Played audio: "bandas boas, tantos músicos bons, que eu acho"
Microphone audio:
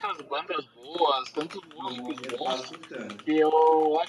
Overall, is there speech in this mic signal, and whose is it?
both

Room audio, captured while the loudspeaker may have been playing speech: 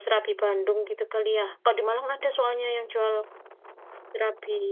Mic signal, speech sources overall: user only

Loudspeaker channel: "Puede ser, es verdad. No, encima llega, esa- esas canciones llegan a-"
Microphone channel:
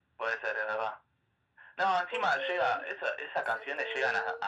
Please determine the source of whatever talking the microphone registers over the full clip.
both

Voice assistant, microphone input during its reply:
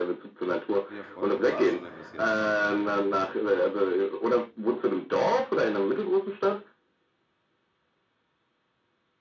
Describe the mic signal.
both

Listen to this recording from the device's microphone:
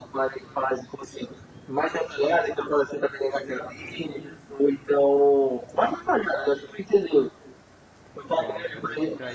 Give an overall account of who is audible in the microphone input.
both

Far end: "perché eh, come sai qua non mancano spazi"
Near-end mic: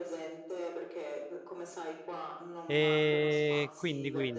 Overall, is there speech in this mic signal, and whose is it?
both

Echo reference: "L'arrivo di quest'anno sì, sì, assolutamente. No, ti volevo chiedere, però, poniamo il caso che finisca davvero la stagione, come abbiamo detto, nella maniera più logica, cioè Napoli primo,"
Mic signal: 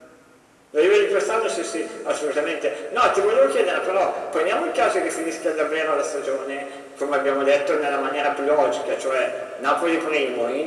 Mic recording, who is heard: echo only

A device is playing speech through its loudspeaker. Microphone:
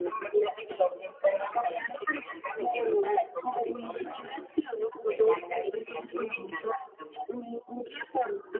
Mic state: echo only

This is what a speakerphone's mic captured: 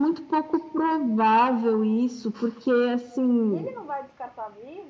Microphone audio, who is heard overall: both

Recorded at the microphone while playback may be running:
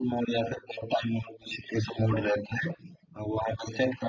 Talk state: echo only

